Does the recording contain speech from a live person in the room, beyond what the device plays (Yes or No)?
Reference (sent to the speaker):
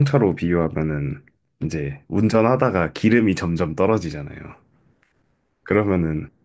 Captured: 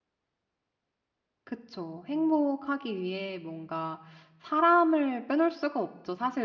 Yes